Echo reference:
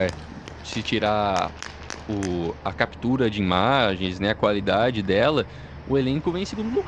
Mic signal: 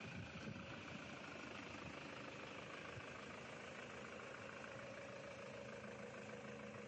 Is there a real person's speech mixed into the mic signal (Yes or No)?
No